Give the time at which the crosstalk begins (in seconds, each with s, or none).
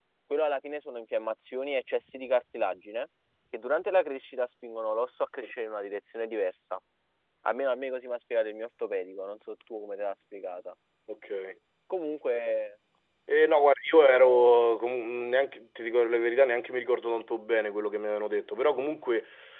none